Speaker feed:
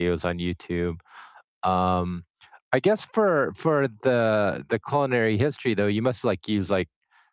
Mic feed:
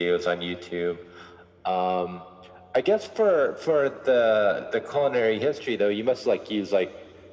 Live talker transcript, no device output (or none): none